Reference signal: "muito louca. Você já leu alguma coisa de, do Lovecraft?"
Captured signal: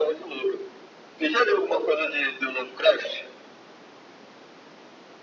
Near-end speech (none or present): none